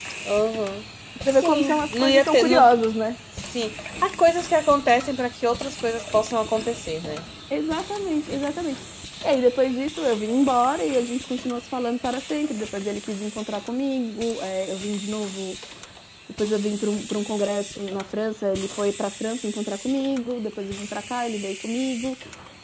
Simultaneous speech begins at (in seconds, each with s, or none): 1.3 s